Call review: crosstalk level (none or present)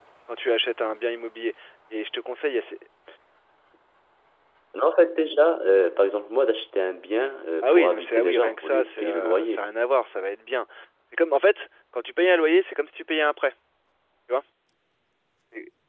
present